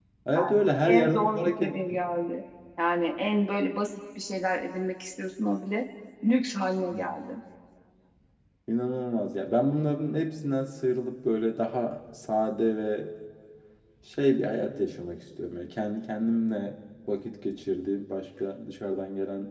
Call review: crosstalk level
present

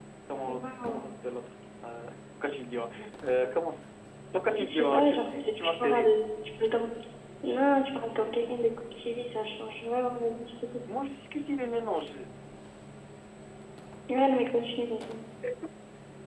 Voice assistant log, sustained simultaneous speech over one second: present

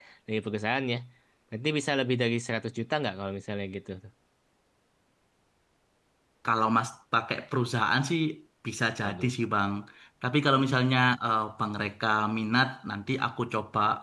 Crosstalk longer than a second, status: none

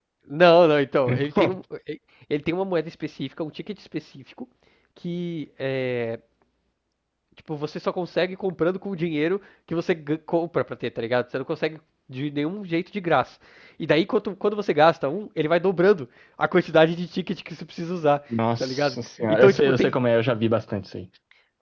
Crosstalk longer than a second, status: present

